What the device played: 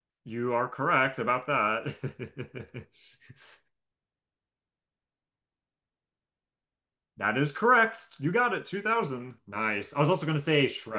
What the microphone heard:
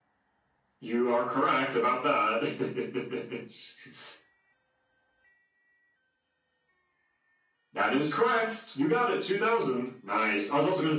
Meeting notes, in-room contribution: none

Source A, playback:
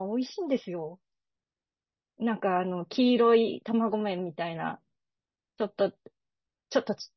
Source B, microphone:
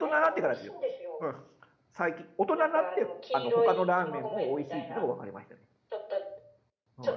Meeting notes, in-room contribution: present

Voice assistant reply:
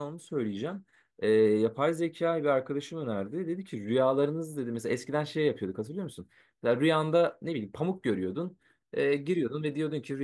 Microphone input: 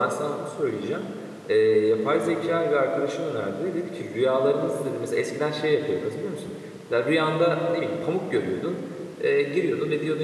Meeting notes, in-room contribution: none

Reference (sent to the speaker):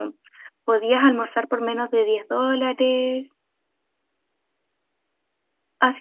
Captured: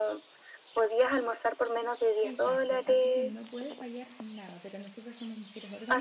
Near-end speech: present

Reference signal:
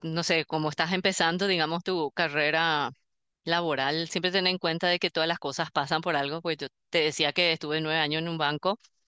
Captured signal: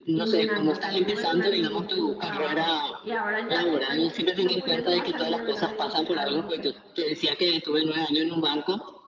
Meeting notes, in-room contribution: present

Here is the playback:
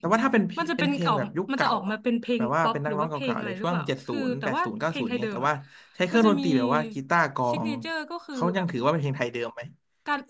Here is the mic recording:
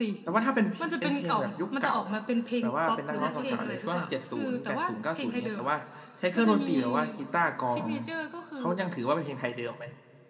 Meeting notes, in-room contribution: present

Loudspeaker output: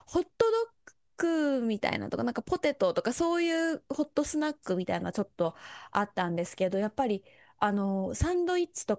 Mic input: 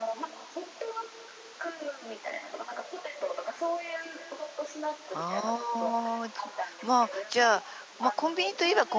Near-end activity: present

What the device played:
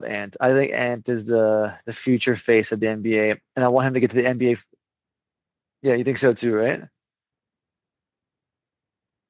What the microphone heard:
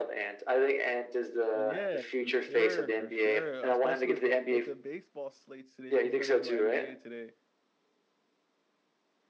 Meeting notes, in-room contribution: present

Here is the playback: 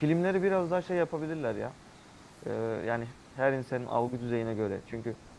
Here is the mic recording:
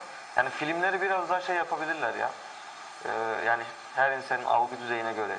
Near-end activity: none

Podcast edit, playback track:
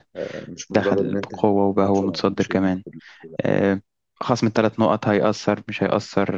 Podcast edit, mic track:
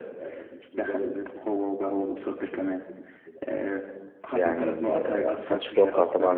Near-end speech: present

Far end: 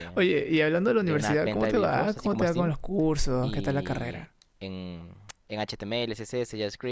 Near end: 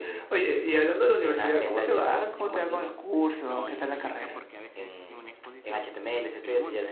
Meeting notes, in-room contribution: present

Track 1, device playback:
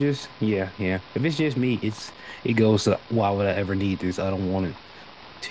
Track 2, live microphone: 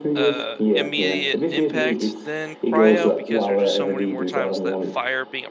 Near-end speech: present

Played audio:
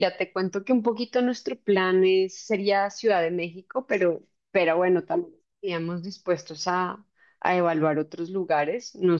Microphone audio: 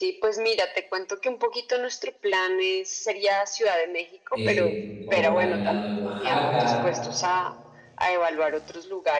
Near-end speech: present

